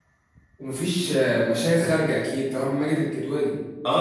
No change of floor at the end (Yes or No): No